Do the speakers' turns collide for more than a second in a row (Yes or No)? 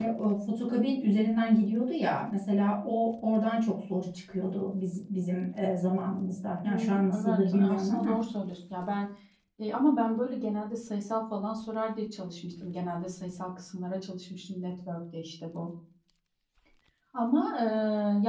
Yes